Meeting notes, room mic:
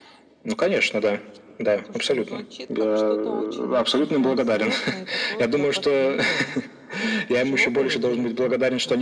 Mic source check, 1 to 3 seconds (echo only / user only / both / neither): both